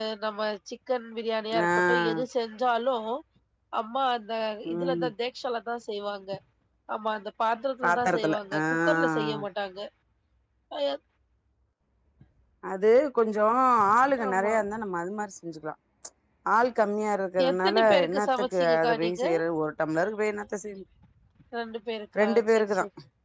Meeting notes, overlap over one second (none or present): present